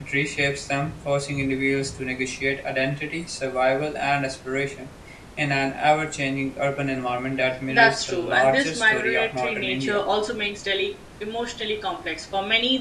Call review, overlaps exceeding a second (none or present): present